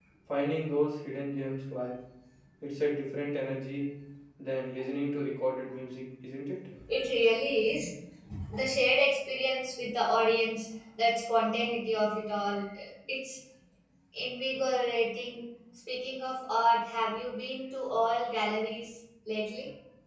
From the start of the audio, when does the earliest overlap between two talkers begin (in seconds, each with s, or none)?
none